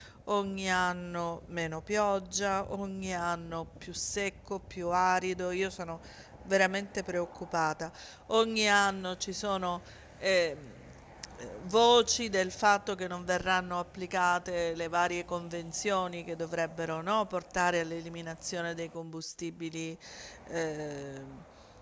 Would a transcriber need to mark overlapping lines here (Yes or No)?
No